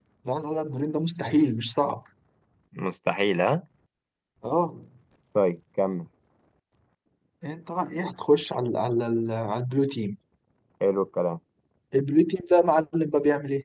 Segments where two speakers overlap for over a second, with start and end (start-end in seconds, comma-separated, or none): none